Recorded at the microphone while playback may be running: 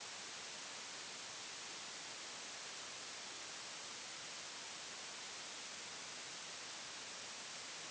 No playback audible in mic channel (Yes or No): Yes